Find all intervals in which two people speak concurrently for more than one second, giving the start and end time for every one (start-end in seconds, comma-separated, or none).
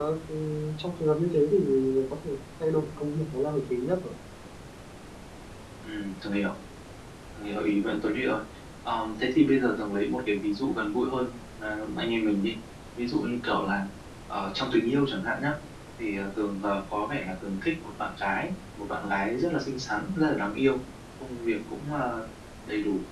none